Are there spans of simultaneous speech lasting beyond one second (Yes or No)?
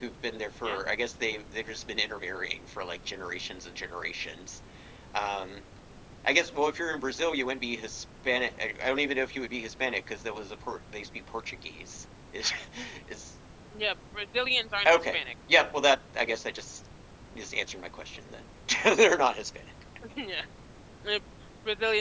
No